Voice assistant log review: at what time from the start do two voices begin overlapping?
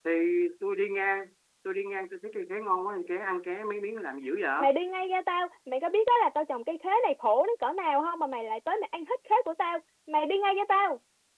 none

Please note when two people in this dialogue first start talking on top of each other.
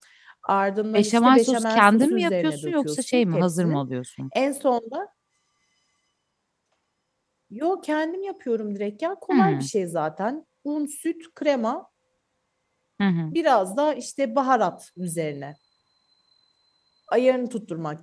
1 s

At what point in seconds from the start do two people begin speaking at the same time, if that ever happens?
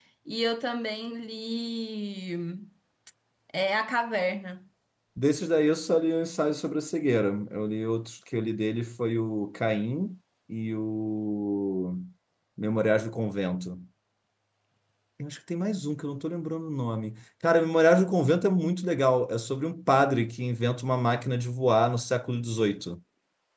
none

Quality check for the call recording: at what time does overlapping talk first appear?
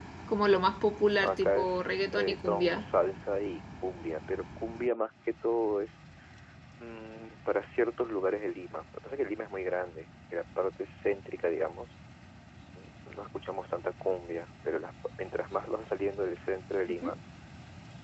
1 s

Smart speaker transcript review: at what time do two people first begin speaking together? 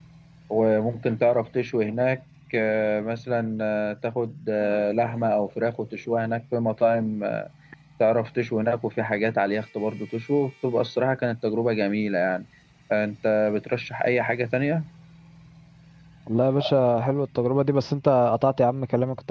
none

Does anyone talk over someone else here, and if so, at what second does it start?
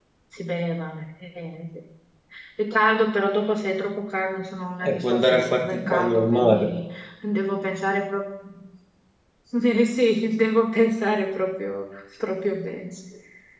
5 s

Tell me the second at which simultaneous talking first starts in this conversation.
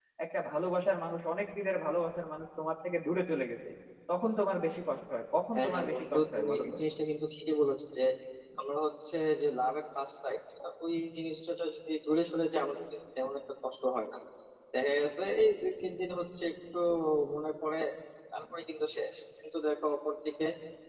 6 s

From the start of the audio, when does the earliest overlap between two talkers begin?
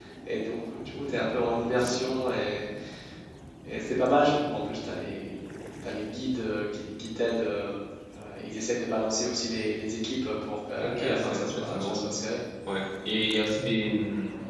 11 s

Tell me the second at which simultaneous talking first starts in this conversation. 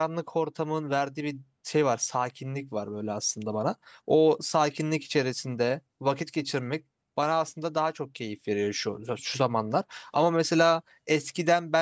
none

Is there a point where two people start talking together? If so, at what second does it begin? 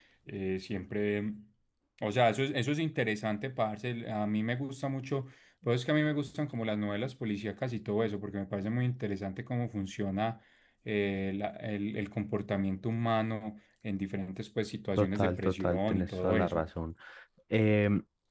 15 s

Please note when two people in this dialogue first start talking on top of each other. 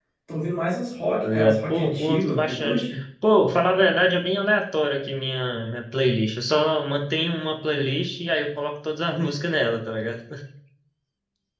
1 s

